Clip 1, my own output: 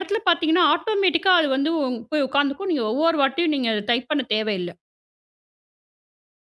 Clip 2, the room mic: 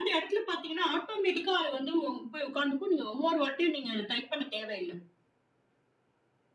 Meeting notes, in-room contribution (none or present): none